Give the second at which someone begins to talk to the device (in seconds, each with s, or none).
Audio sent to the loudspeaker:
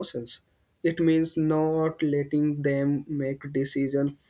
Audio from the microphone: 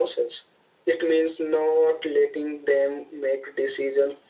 none